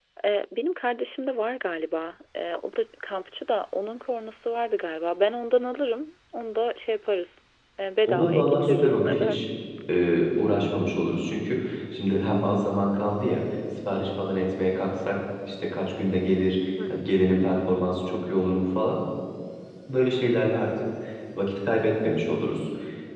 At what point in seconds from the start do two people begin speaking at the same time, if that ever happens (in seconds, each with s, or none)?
8.1 s